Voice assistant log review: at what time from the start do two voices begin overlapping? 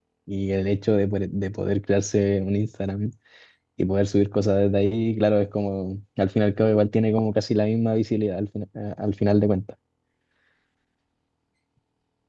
none

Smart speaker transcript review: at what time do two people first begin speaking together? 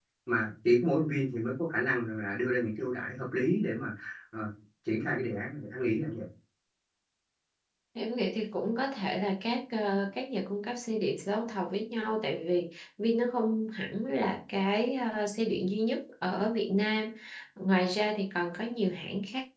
none

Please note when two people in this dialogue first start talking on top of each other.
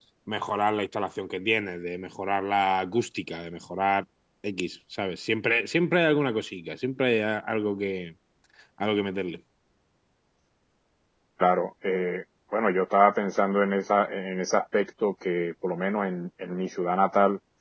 none

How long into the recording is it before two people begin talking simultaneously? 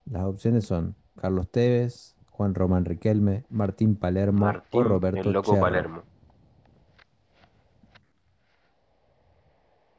4.3 s

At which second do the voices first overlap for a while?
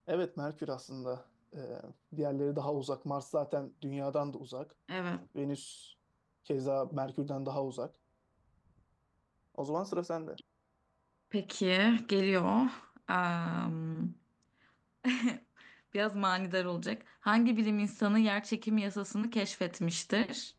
none

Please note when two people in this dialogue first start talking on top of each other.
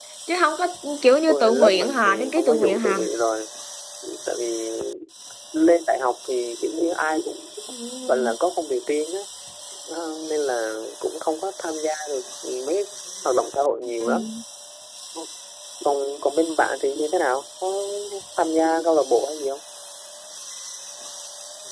1.3 s

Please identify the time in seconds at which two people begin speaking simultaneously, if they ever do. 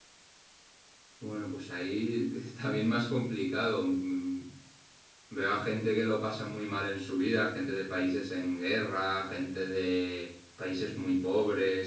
none

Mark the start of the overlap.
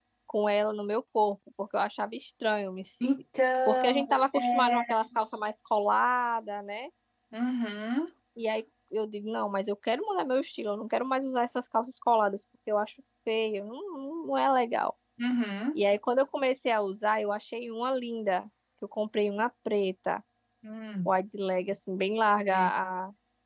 3.7 s

